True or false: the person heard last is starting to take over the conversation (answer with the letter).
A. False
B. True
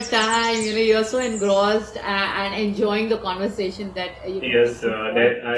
B